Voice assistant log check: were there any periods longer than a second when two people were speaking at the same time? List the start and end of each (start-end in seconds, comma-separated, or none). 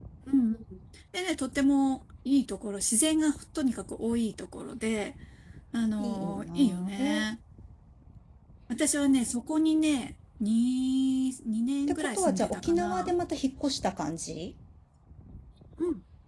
6.0-7.2, 11.9-13.1